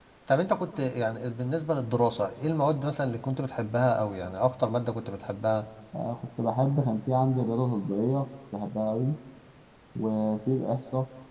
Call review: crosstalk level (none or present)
none